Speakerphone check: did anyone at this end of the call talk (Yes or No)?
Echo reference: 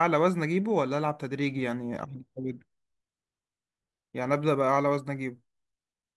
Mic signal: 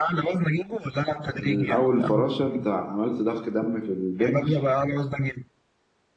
Yes